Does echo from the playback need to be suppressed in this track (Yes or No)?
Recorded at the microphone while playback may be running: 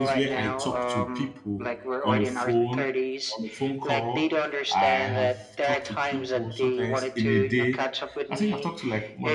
Yes